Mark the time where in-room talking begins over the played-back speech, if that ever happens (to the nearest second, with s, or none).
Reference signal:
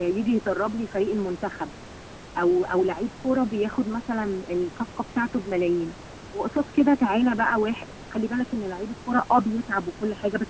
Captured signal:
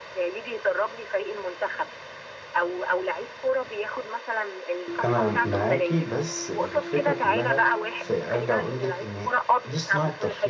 5 s